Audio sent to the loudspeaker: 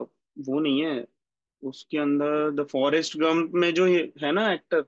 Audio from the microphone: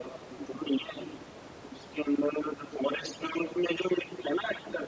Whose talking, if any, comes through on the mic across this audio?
echo only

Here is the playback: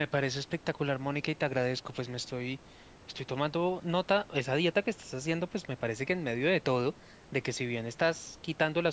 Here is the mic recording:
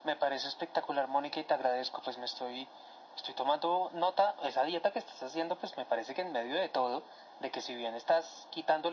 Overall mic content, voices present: echo only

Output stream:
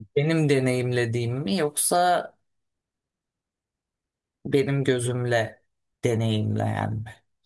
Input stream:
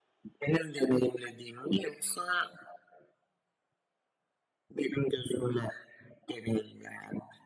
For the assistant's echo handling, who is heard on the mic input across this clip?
echo only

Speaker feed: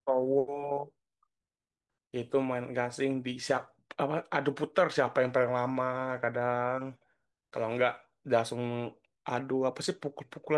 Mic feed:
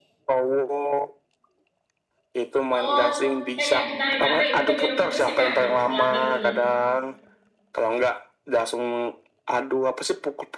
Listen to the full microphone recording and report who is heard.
both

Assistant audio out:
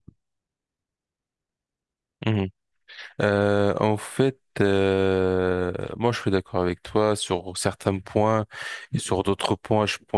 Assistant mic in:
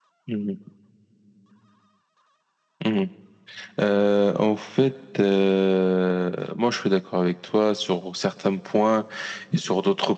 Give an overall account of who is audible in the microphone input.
echo only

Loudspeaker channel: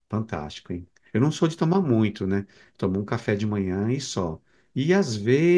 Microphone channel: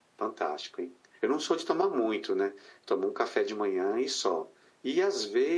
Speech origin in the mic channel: echo only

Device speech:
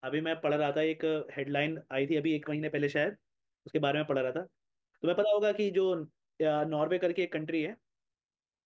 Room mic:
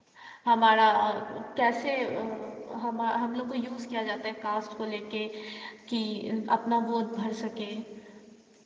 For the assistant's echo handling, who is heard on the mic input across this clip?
user only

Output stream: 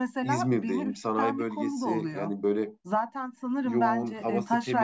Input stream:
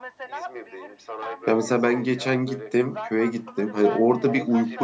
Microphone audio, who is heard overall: both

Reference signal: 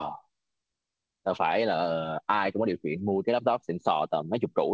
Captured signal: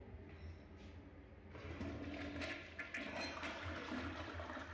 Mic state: neither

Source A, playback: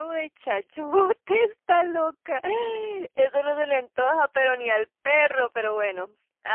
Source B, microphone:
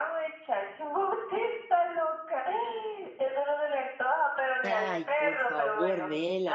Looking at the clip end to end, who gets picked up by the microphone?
both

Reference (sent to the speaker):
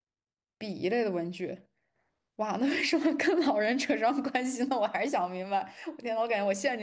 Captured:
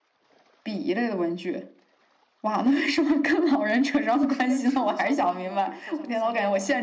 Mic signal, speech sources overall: both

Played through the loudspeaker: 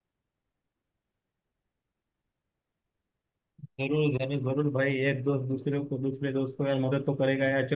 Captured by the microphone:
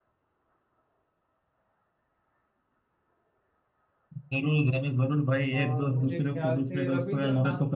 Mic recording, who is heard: both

